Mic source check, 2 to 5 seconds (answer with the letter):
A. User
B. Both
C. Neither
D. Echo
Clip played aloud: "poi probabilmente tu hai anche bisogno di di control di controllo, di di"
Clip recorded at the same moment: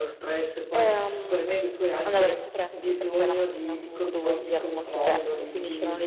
B